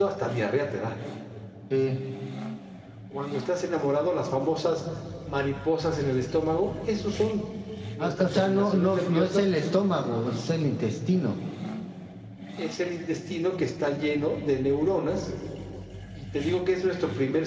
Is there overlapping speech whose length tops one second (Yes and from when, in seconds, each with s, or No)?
Yes, from 8.0 s